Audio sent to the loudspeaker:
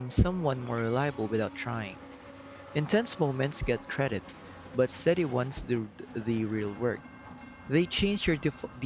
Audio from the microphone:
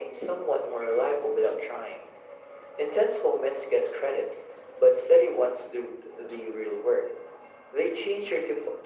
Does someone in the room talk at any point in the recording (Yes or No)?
No